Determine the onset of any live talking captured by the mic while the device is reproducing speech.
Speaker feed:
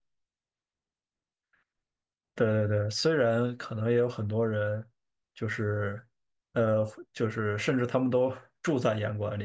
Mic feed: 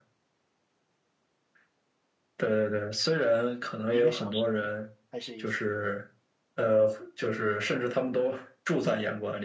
4 s

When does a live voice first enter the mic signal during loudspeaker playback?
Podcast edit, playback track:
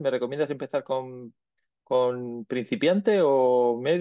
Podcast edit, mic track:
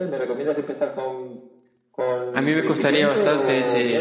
2 s

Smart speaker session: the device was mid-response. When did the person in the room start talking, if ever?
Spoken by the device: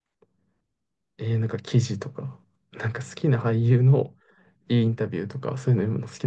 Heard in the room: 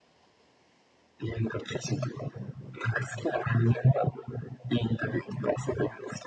none

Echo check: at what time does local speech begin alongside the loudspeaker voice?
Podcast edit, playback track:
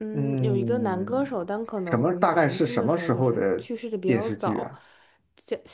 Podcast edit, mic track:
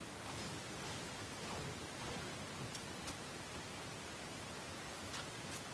none

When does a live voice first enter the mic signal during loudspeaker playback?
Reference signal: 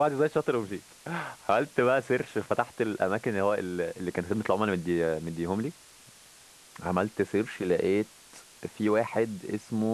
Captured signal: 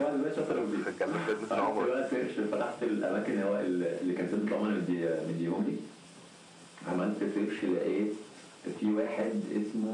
0 s

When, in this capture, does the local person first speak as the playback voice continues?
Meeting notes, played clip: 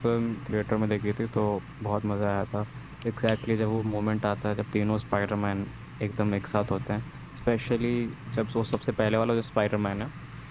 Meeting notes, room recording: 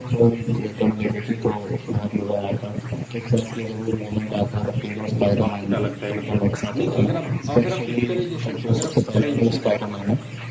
5 s

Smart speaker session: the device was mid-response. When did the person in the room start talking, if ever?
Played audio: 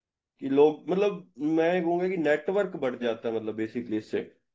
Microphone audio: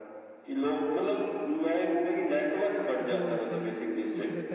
3 s

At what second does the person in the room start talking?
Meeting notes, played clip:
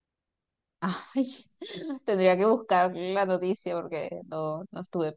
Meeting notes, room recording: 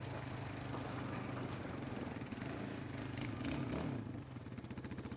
none

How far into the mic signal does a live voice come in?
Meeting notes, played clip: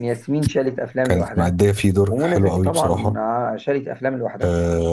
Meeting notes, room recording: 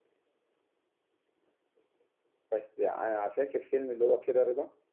3 s

